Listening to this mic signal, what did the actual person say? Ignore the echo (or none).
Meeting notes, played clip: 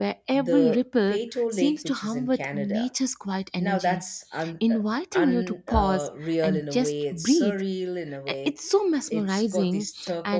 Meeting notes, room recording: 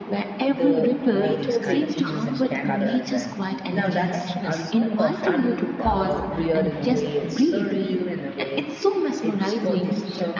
all these kind of hues of colors. And the reflection is so perfect